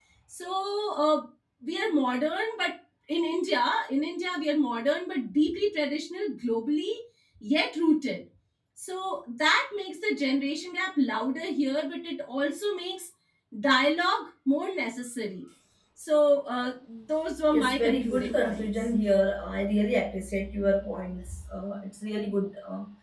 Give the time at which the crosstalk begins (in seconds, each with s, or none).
17.3 s